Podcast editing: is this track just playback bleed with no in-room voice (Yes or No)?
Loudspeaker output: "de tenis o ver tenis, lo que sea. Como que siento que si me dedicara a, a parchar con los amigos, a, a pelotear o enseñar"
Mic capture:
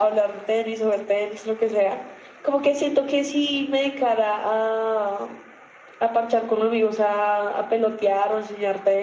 Yes